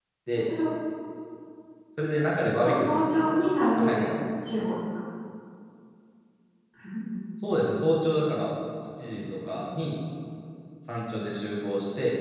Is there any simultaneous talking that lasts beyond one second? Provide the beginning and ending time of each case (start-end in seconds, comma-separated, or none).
2.6-4.1